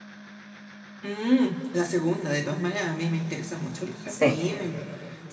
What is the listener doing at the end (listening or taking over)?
listening